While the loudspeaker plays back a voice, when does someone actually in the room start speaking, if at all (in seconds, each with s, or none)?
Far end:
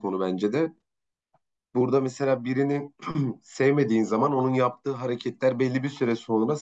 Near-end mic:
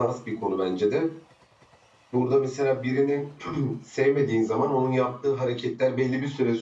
none